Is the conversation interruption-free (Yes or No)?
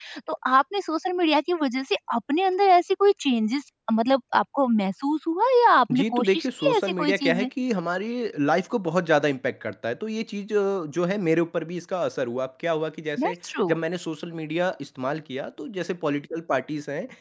No